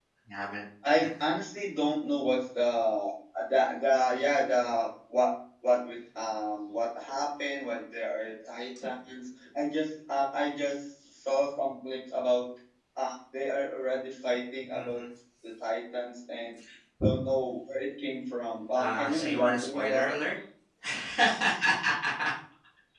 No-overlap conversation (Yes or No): No